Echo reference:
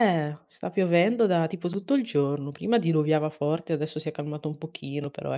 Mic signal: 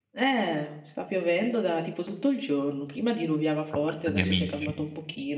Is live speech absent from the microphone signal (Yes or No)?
No